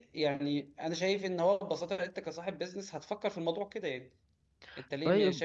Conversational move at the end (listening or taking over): listening